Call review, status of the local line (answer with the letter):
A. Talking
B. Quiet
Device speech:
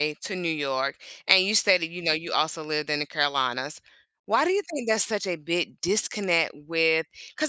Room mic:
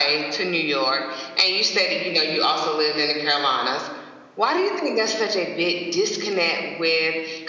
B